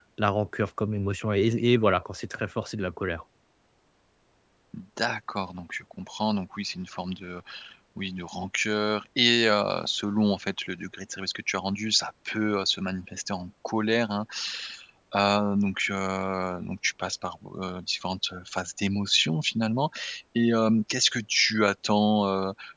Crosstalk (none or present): none